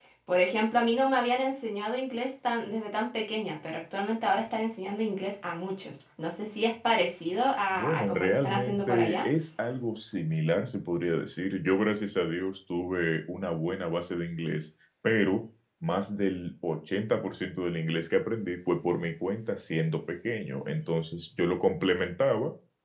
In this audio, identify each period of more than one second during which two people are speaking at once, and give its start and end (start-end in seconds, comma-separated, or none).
7.7-9.3